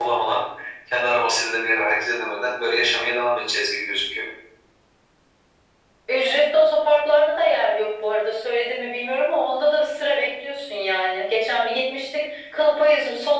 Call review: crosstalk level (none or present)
none